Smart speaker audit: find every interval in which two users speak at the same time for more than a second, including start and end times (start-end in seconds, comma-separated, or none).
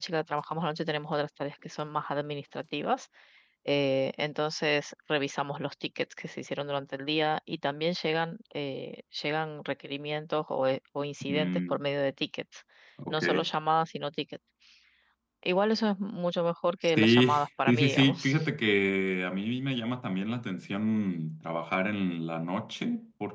17.0-18.4